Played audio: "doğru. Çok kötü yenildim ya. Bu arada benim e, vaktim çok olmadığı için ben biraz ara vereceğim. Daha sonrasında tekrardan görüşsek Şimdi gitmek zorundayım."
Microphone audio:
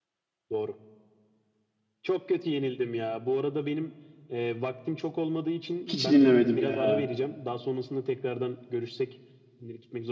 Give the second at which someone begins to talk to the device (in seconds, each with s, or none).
5.8 s